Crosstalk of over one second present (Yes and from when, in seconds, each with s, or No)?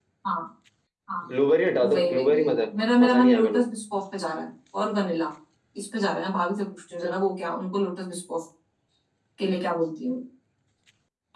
Yes, from 1.9 s